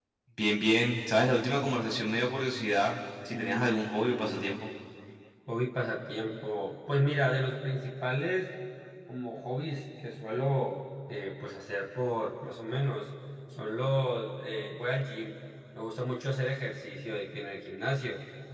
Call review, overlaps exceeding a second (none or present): present